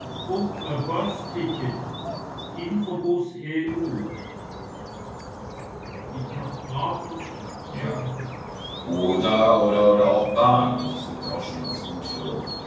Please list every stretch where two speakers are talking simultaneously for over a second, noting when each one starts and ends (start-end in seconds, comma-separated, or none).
none